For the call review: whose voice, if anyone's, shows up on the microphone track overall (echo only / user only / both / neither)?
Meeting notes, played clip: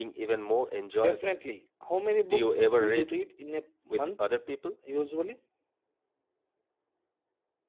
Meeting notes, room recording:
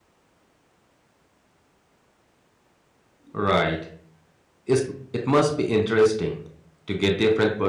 user only